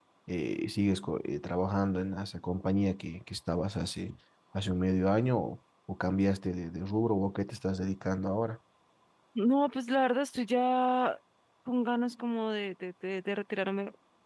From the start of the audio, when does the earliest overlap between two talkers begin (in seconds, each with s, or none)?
none